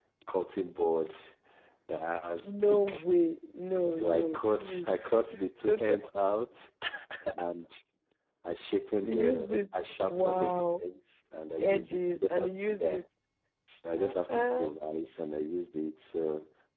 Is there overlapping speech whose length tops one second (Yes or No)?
Yes